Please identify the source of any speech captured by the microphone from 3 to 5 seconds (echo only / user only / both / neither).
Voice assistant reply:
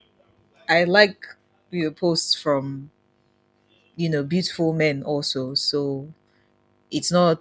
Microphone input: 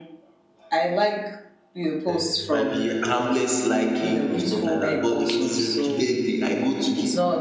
both